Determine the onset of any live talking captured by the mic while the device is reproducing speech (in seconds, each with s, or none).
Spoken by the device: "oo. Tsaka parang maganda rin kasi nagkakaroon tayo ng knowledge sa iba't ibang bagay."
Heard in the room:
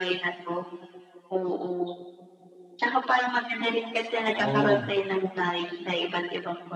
4.0 s